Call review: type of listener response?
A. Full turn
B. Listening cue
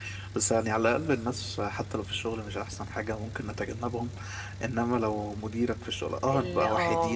B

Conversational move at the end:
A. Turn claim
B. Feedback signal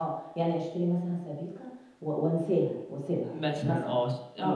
A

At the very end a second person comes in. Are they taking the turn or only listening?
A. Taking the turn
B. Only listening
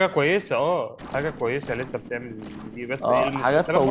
A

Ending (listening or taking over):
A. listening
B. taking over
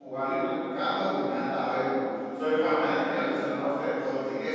A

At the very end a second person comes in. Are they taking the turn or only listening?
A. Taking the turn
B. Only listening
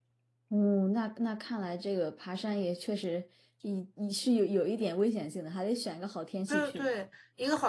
A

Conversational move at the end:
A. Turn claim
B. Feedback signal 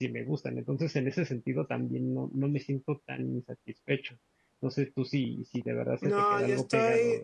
A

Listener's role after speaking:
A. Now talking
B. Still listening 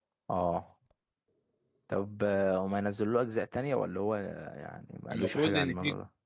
A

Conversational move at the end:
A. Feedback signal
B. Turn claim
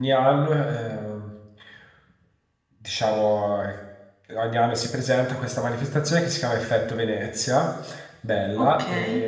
A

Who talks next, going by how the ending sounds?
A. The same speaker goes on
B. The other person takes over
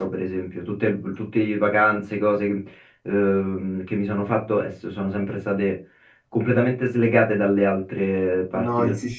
B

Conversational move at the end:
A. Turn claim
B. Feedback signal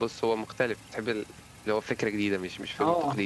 A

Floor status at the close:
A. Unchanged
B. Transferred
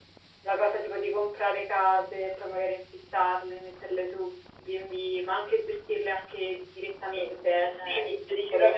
B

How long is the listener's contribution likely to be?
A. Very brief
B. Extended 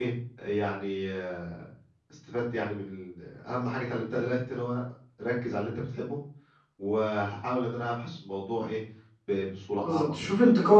B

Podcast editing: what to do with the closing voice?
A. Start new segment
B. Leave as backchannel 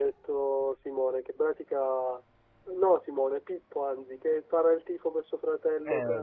A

